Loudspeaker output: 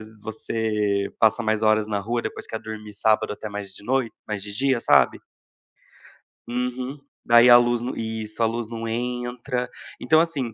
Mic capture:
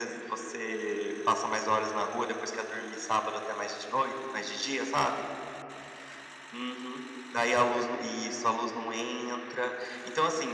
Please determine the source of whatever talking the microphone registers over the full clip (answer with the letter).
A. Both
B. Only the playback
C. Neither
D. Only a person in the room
B